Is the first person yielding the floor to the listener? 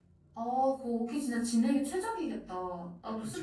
No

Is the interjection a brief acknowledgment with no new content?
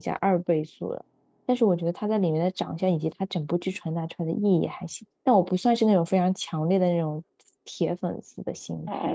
No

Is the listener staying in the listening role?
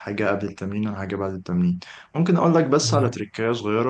Yes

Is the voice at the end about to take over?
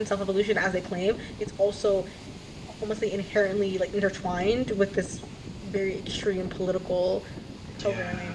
Yes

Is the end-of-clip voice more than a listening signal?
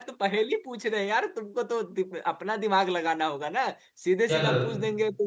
No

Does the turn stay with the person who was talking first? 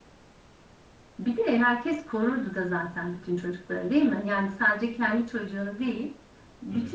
Yes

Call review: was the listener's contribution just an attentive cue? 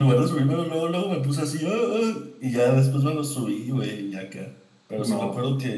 Yes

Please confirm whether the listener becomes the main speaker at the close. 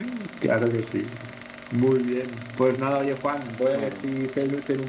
No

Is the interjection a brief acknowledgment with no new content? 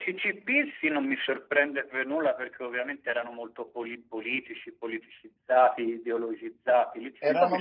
No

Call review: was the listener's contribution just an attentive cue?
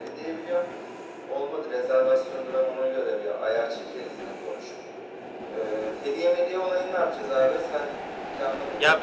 No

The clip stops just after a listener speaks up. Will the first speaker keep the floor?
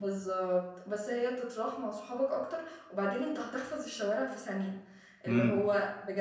Yes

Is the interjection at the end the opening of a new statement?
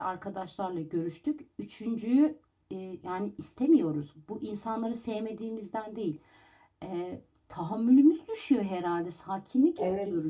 Yes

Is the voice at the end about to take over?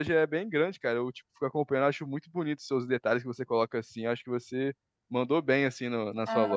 Yes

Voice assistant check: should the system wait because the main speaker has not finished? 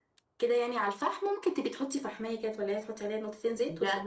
No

